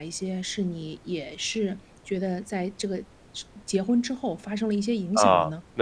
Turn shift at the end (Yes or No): Yes